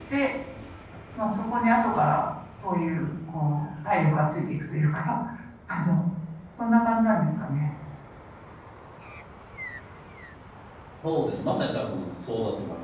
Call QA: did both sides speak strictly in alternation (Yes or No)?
Yes